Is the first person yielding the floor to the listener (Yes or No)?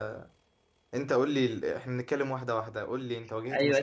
Yes